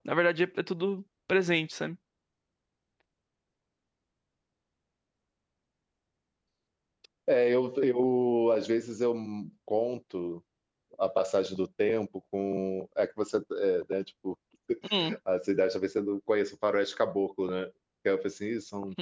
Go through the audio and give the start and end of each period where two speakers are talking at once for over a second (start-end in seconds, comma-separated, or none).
none